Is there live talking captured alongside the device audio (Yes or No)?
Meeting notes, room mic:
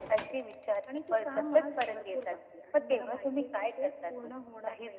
No